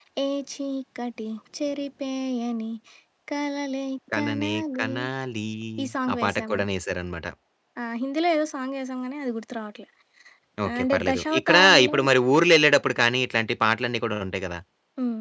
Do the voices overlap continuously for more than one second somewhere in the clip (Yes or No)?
Yes